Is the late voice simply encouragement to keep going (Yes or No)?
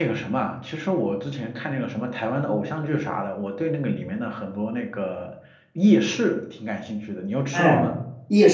No